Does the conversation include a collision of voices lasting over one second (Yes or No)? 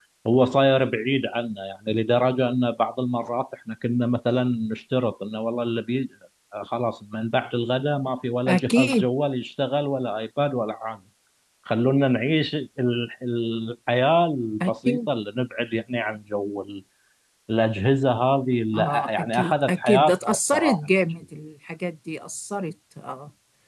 Yes